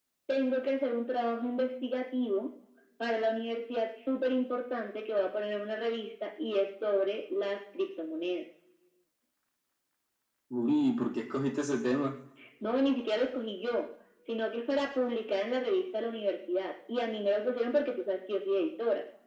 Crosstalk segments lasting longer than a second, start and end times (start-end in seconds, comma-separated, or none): none